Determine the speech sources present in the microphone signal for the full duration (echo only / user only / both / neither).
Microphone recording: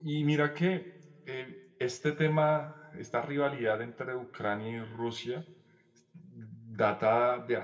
user only